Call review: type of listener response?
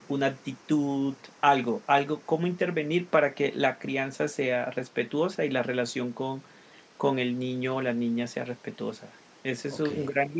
listening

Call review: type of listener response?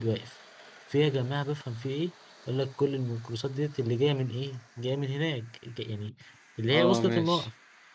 listening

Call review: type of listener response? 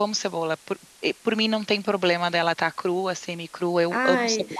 taking over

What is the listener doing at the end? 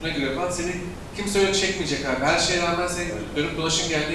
listening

